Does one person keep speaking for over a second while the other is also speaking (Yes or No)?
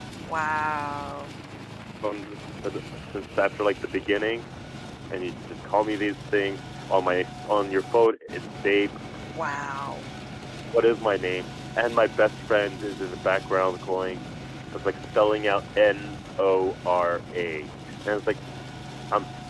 No